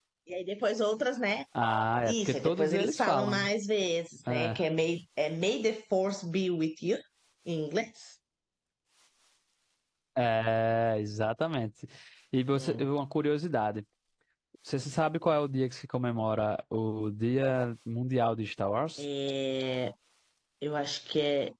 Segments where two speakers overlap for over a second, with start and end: 2.0-3.5

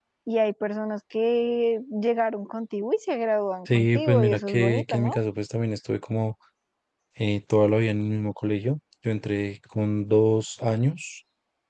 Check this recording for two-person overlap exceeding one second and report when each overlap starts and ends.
3.7-5.2

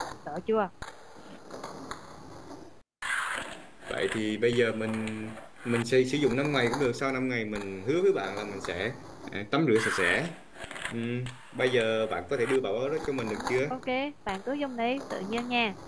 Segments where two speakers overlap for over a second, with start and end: none

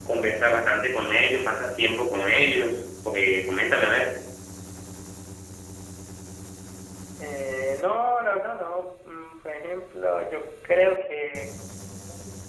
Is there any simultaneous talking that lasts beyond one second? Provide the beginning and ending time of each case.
none

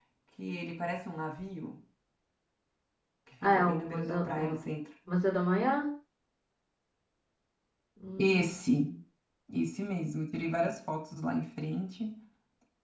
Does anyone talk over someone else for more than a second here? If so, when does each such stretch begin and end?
3.4-4.6

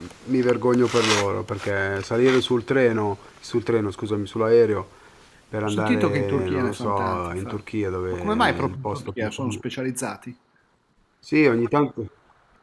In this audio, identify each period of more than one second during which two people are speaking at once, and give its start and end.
5.6-7.6, 8.1-9.6

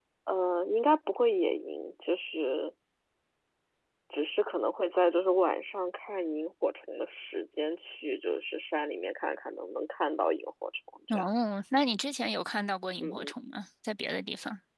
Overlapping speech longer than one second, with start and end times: none

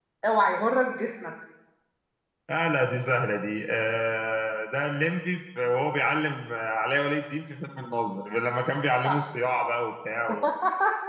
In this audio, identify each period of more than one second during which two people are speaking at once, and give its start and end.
none

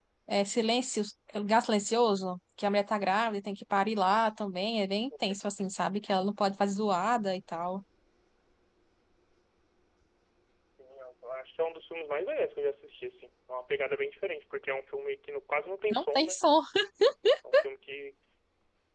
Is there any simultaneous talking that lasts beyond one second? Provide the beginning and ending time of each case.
none

